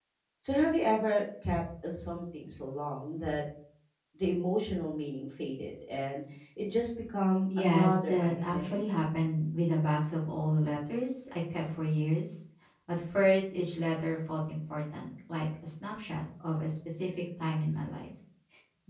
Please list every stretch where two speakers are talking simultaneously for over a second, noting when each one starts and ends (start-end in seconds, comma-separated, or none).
7.6-8.8